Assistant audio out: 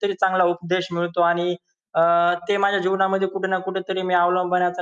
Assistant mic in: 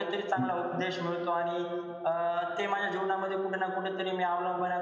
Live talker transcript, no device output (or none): हं, हं.